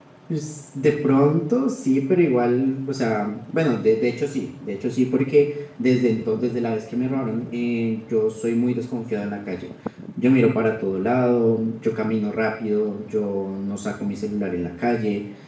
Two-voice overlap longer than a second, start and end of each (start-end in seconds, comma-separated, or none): none